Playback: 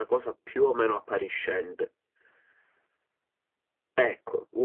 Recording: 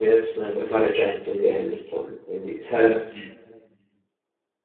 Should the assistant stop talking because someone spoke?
Yes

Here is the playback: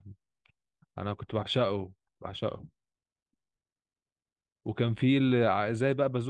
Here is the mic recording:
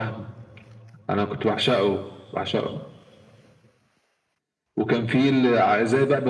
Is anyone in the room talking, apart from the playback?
No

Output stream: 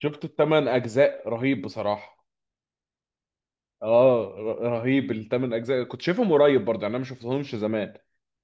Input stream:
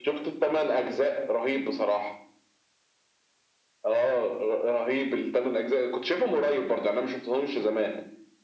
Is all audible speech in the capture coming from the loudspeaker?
Yes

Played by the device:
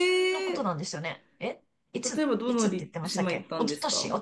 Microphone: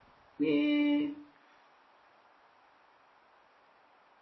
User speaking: Yes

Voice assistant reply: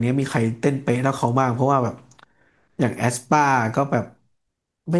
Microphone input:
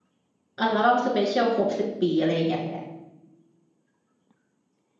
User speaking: Yes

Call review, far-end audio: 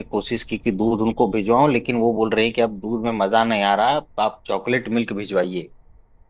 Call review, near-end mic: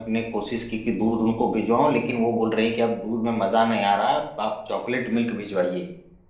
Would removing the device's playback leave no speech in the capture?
Yes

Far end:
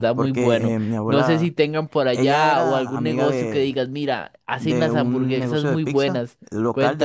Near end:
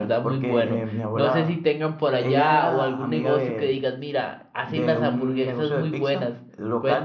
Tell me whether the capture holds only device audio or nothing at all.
Yes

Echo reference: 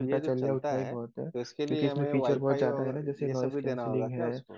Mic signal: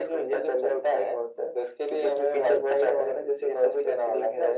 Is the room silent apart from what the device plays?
Yes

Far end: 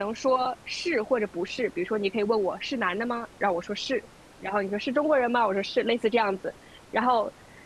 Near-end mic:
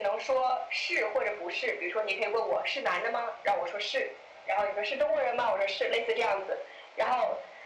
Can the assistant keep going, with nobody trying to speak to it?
Yes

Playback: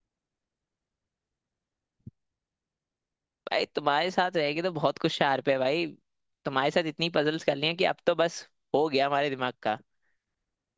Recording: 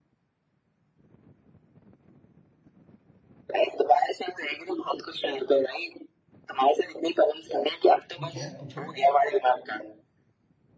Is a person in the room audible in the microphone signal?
Yes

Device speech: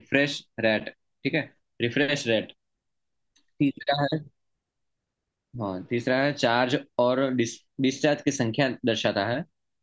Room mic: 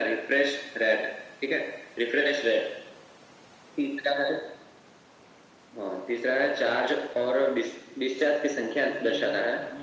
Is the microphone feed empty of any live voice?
No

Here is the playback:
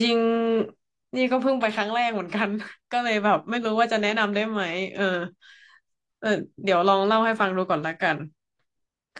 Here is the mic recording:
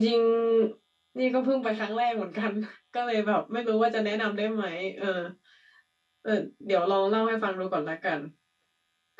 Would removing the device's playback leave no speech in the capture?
Yes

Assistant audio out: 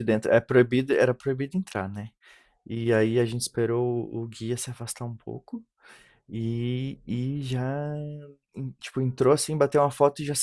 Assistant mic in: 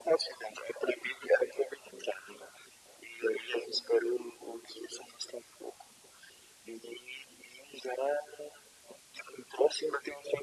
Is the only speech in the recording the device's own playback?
Yes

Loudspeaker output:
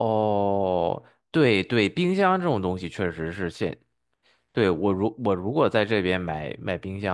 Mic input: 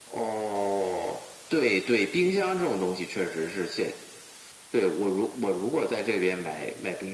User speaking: No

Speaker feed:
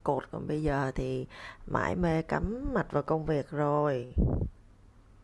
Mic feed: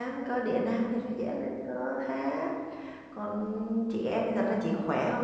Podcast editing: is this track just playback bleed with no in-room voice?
No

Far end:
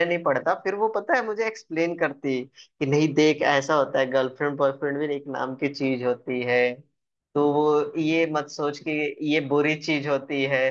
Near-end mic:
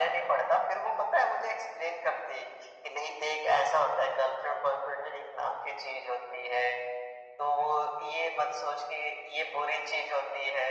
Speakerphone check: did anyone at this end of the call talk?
No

